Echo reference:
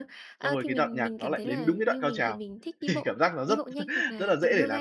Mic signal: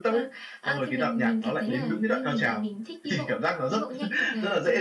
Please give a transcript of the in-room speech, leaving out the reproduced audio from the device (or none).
none